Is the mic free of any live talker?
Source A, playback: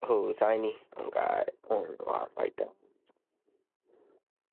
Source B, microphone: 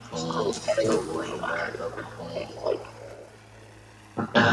No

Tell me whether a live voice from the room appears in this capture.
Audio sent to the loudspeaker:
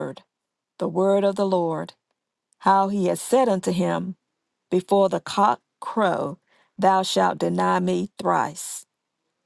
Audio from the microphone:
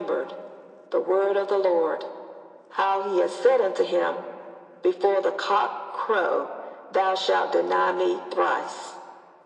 No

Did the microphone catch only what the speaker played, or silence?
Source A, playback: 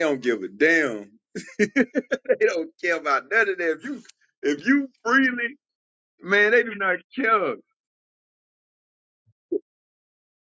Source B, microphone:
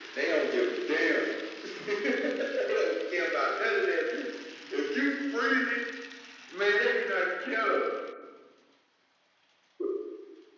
Yes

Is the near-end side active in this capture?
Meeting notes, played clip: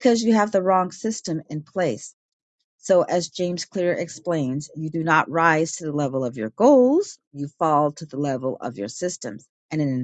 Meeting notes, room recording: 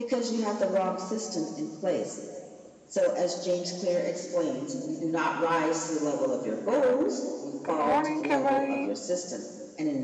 Yes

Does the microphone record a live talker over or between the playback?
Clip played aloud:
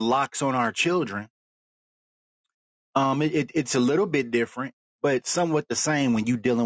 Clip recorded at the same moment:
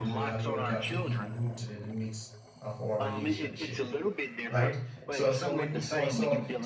Yes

